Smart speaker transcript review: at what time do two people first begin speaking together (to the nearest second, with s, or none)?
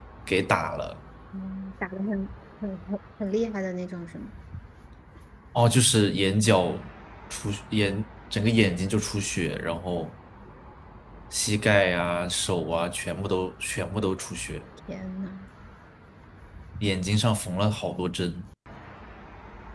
none